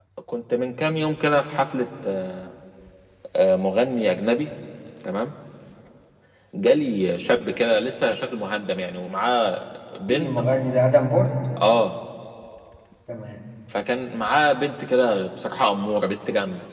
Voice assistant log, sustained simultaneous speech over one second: none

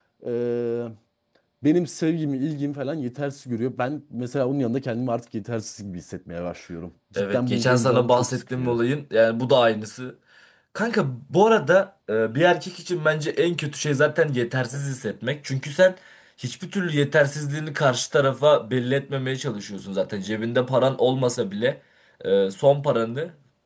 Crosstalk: present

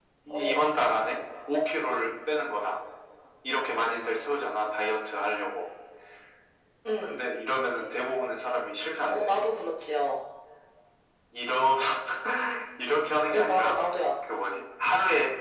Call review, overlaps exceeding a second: none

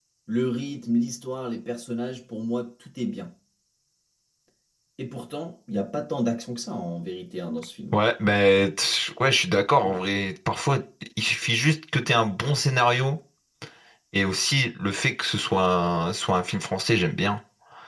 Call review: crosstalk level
none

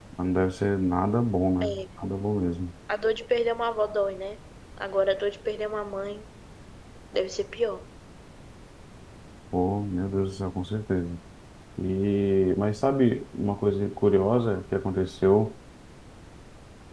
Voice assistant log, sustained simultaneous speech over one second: none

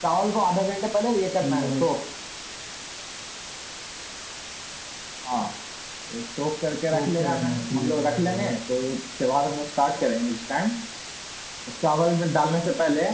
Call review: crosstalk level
present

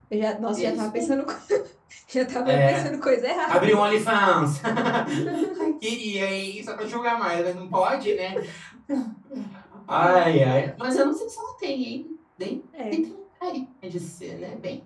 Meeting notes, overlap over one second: none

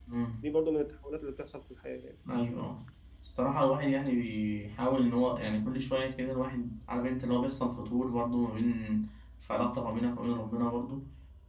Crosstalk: none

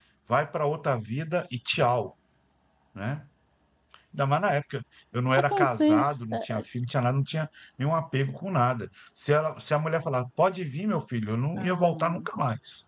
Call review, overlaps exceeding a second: present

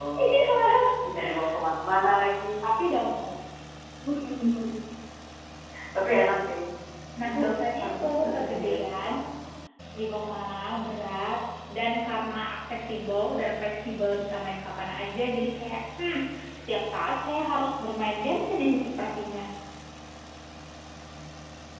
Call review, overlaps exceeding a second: present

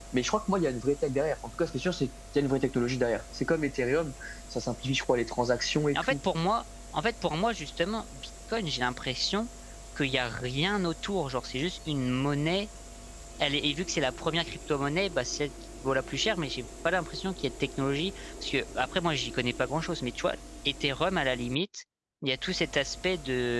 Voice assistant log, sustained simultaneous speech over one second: none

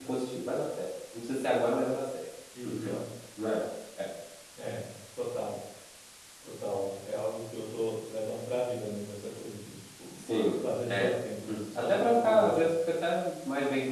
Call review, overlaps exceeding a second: present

